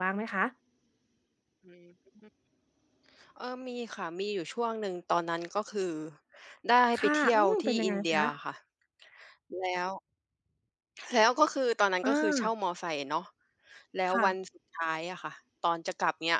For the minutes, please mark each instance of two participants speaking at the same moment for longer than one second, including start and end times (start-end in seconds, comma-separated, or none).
6.9-8.2